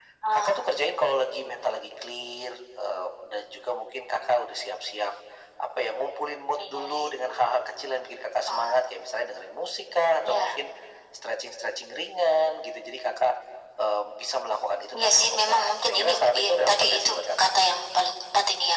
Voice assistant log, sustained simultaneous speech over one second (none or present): present